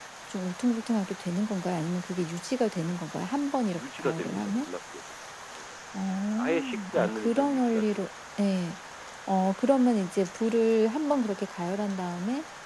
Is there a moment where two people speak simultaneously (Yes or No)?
Yes